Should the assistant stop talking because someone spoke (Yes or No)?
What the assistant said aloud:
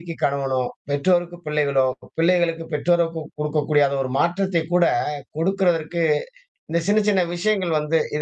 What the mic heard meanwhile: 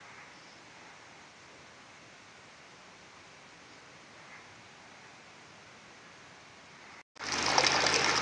No